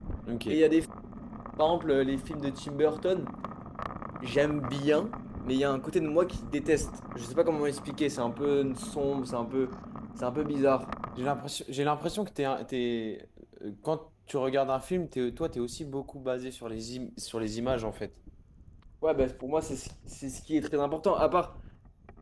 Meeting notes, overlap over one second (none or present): none